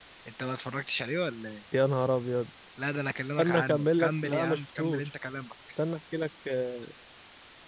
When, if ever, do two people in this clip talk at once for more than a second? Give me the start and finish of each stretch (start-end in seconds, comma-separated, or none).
3.4-5.1